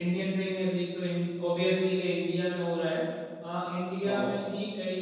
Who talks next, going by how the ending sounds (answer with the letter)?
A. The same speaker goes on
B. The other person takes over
A